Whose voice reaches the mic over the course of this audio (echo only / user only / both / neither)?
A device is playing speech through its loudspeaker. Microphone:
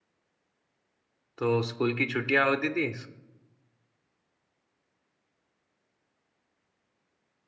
user only